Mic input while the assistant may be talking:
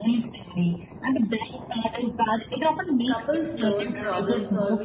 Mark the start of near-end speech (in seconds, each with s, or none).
3.0 s